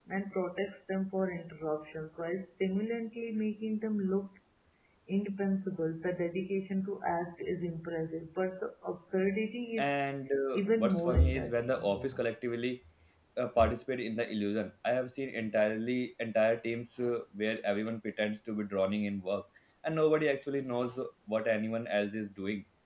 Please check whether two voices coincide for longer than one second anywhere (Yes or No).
Yes